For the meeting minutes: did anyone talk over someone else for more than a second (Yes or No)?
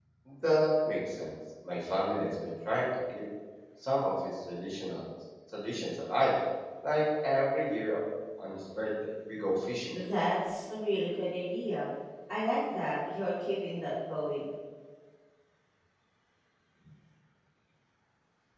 No